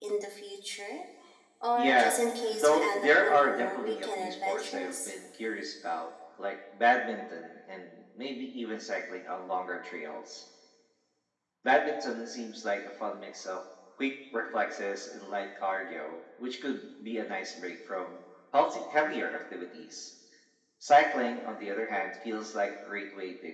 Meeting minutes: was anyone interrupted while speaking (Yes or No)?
Yes